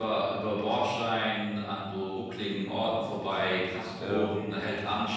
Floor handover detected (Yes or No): No